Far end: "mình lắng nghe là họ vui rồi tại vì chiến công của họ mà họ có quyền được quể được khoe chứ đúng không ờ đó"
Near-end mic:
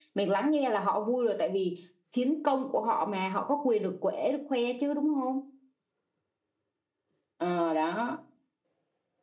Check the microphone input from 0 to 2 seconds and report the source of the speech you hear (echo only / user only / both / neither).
echo only